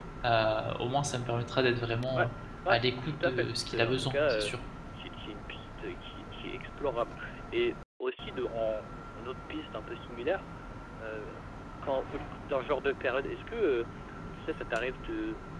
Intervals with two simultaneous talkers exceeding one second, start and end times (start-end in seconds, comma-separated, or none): 2.7-4.5